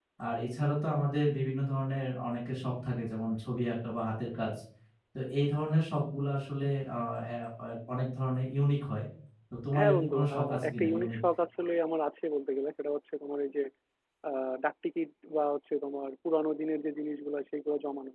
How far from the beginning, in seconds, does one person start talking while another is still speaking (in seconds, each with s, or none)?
9.8 s